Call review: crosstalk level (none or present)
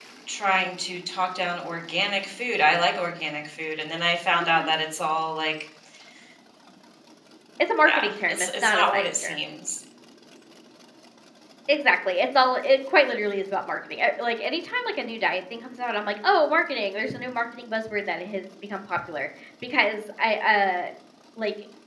present